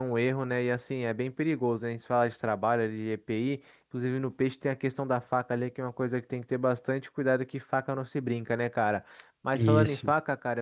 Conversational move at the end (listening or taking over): listening